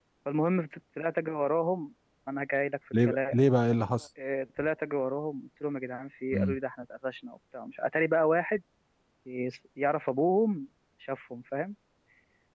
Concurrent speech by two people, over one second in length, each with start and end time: none

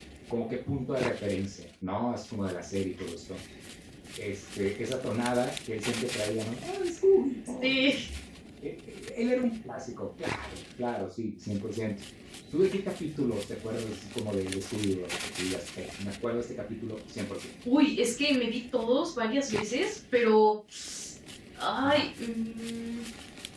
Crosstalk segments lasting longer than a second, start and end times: none

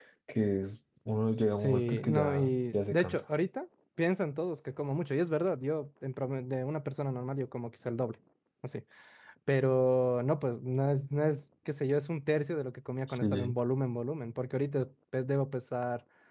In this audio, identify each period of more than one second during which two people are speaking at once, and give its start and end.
1.6-3.2

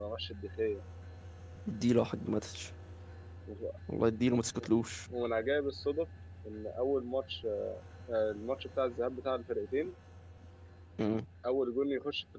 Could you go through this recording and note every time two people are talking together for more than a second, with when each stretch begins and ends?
none

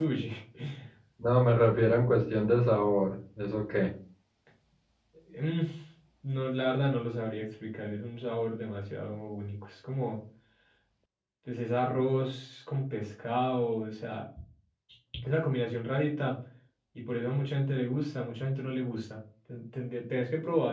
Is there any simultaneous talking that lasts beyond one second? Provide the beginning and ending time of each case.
none

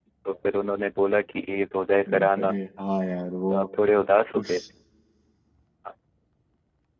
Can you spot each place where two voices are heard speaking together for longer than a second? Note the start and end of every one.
none

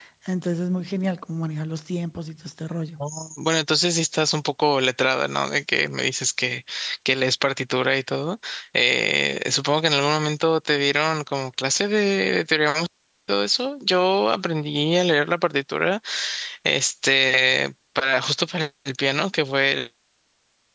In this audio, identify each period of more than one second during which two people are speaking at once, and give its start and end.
none

